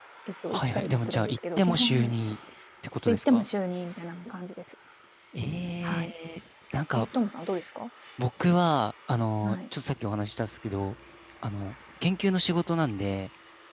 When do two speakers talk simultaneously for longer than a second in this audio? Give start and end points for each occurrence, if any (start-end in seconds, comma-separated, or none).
0.5-2.1